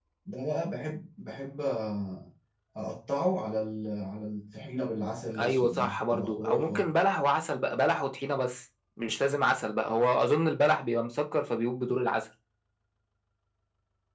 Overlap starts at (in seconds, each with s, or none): 5.3 s